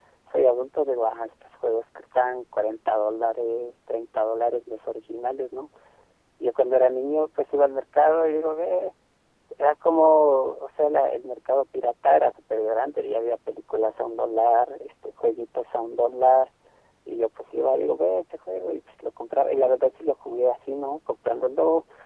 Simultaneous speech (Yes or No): No